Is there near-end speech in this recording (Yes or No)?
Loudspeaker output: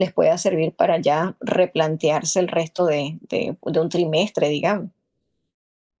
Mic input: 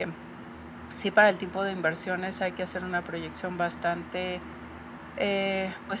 Yes